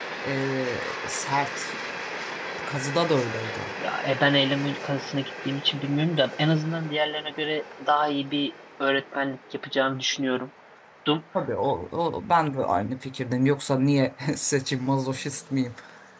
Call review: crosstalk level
none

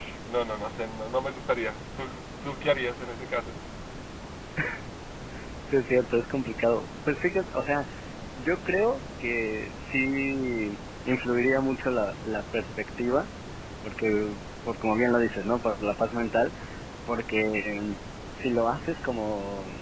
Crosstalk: none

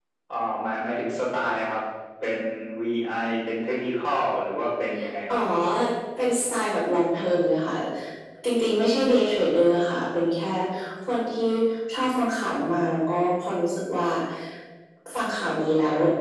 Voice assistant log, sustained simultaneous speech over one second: none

